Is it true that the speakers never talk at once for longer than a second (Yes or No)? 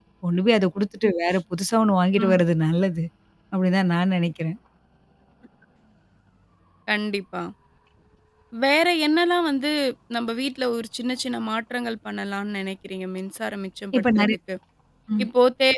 Yes